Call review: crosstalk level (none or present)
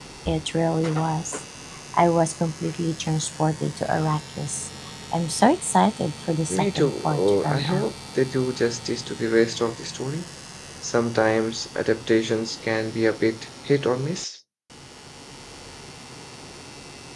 present